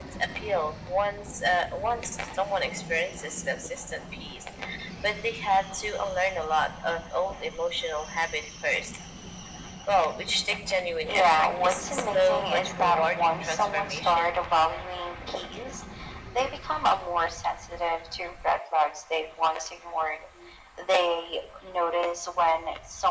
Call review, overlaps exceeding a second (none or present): present